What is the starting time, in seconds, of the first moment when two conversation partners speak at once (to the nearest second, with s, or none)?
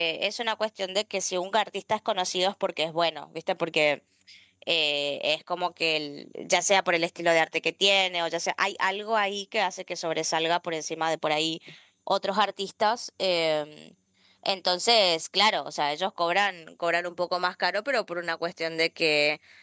none